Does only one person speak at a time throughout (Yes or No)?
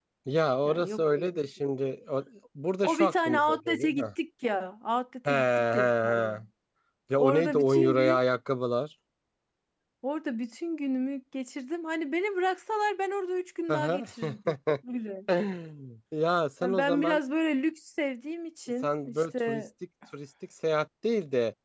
No